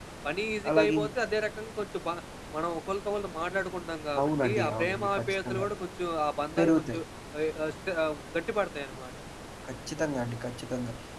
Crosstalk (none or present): present